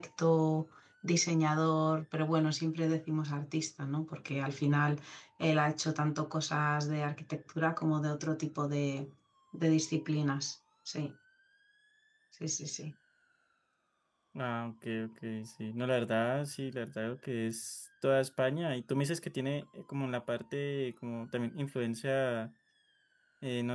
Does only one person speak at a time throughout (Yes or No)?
Yes